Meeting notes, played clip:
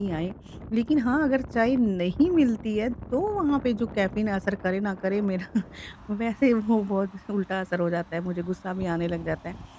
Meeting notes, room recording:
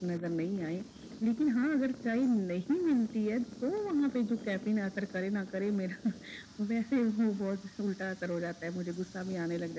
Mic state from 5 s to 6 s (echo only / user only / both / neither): echo only